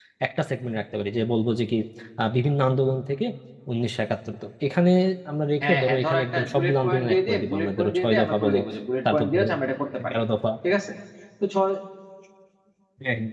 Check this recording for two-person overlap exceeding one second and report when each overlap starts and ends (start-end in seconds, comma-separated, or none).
5.6-8.6